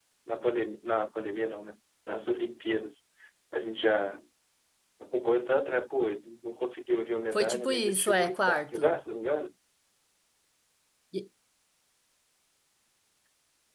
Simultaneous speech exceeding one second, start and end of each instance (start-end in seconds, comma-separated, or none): 7.3-9.0